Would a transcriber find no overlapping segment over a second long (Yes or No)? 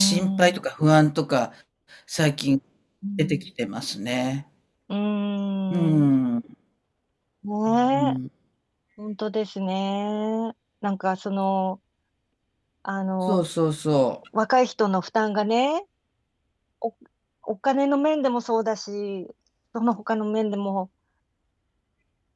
Yes